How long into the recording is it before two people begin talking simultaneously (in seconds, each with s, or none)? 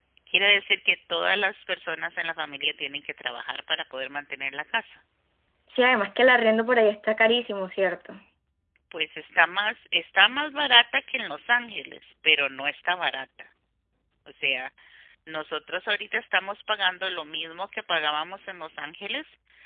none